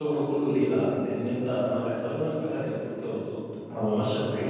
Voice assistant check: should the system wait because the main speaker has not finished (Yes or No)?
Yes